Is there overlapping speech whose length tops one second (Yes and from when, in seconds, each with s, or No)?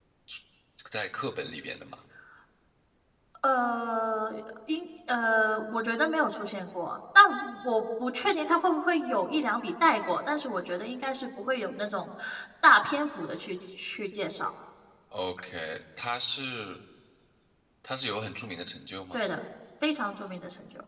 No